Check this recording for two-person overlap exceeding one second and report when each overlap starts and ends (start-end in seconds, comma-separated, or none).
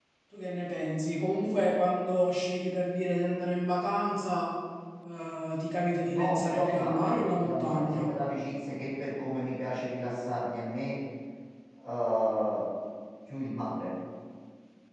6.0-8.1